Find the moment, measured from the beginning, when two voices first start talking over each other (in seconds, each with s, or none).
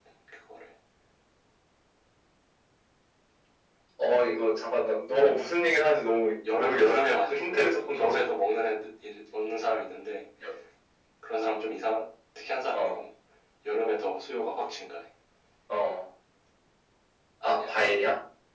6.5 s